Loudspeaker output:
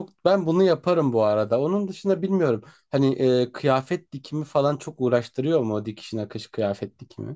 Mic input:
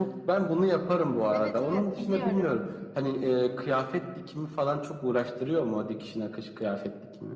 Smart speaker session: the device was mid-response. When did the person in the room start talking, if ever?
1 s

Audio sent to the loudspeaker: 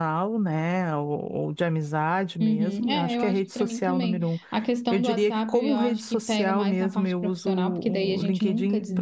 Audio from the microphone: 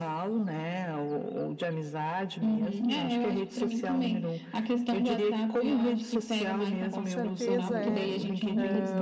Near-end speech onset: 7 s

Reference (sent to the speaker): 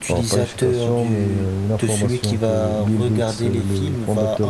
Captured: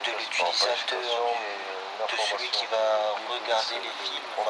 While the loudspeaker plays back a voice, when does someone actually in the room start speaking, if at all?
none

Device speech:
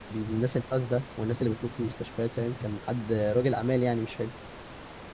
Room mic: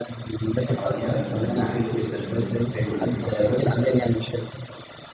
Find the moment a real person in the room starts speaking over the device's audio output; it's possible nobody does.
1 s

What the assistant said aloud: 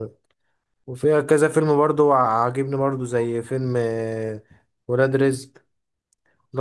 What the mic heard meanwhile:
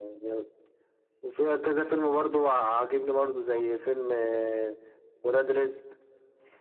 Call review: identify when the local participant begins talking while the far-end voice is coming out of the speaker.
none

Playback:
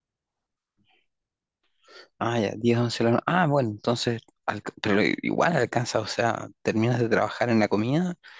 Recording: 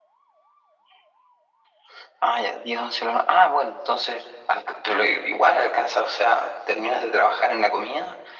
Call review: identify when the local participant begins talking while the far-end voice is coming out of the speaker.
none

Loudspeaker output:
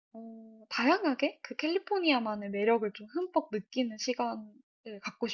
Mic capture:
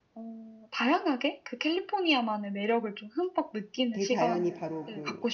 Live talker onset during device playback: 4 s

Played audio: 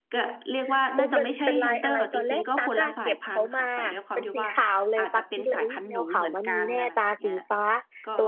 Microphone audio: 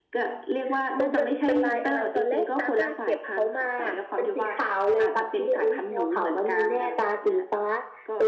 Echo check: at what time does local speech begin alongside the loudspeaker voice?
none

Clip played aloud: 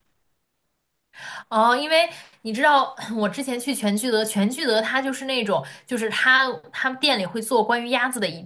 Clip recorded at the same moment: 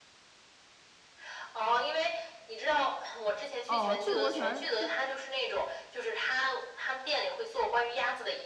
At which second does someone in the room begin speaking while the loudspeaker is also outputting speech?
4 s

